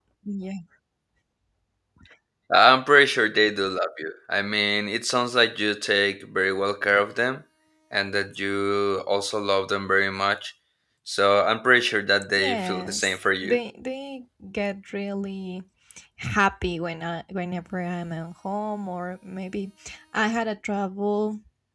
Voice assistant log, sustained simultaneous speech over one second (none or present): present